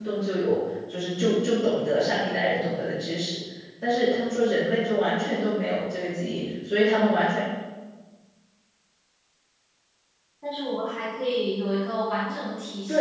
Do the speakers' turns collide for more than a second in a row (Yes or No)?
No